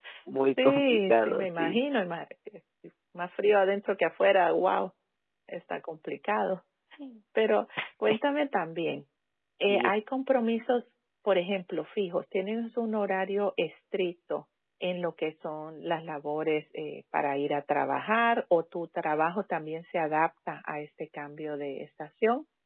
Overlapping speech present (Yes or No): Yes